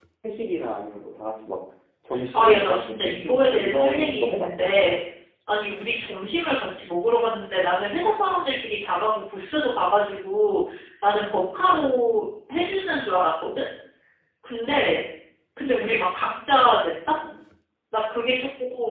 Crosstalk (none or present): present